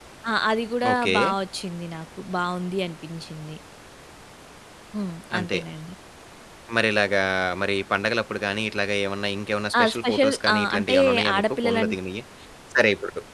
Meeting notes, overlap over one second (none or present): present